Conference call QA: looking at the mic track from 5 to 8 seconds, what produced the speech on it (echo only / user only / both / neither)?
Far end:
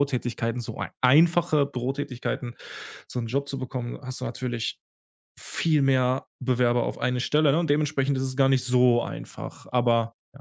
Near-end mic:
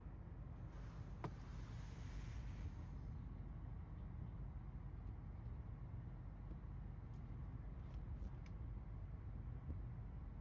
neither